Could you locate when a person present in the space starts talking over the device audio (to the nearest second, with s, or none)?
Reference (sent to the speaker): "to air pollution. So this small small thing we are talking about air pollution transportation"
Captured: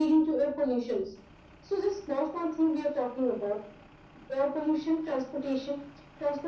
none